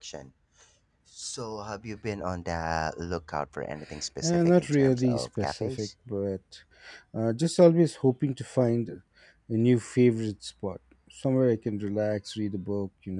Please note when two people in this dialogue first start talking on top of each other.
4.2 s

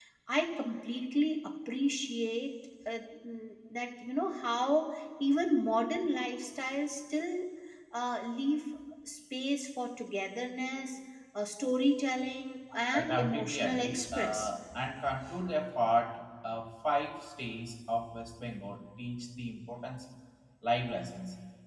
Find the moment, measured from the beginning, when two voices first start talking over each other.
12.9 s

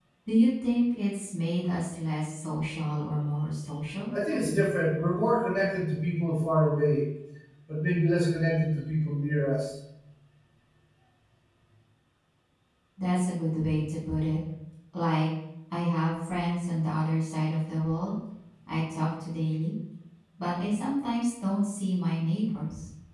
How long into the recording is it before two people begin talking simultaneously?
none

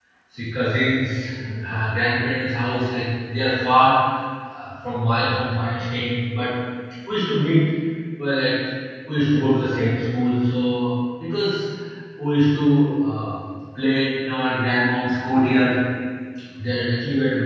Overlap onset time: none

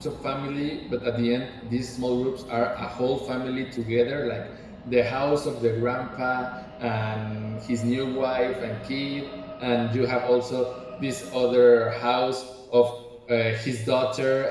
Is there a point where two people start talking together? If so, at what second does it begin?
none

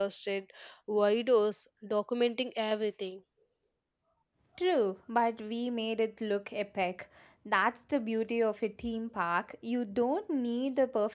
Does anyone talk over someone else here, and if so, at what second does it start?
none

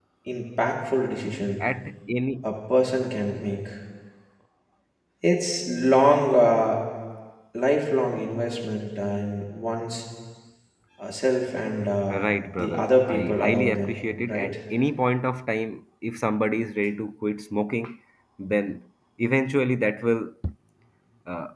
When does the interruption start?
12.1 s

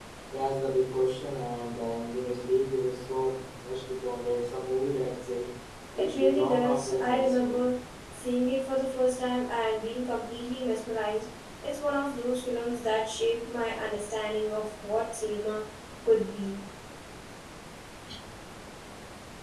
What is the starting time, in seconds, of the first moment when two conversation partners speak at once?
6.0 s

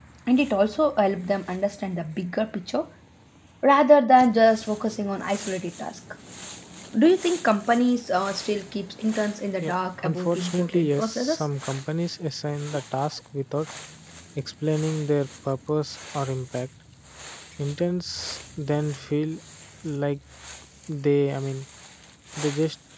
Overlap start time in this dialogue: 9.6 s

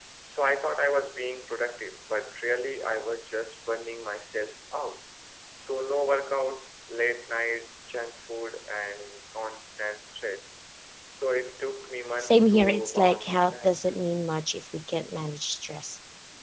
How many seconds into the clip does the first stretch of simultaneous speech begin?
12.2 s

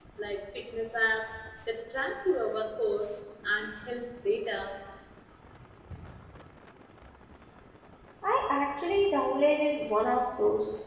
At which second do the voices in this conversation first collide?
none

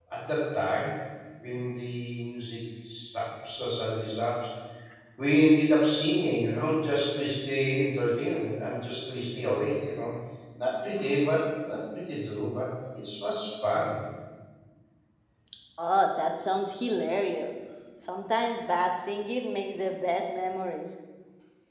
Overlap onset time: none

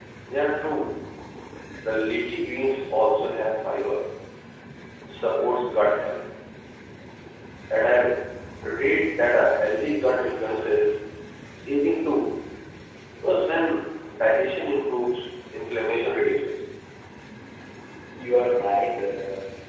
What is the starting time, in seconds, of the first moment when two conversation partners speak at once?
none

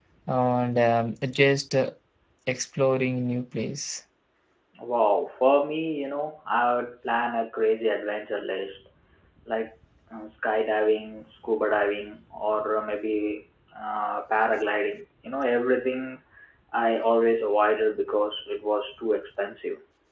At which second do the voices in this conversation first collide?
none

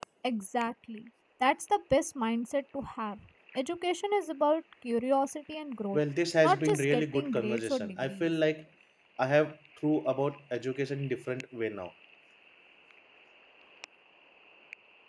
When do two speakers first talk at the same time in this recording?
6.4 s

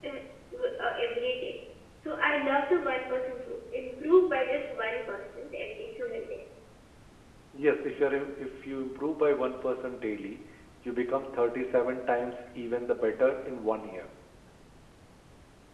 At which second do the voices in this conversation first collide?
none

